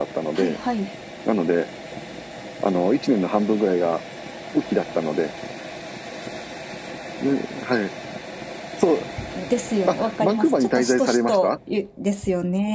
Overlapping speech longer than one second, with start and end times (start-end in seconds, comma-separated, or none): 9.9-11.6